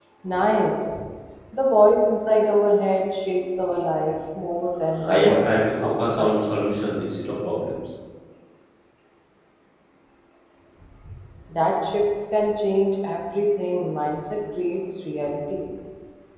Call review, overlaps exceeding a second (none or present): present